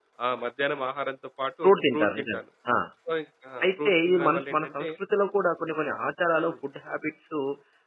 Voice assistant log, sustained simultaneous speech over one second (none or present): present